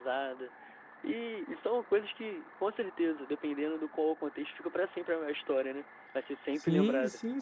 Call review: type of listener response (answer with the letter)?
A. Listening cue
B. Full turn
B